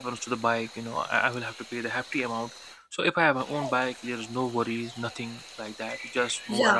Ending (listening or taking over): taking over